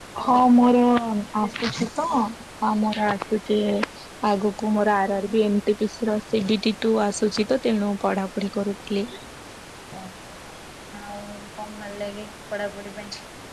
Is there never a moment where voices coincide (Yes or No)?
Yes